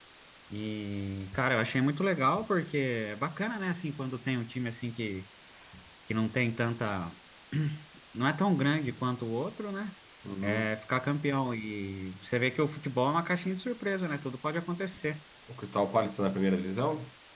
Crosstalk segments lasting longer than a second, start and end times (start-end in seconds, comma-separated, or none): none